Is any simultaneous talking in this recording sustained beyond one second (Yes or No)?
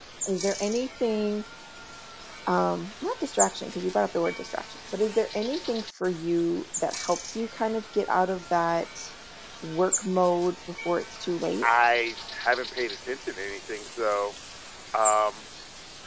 No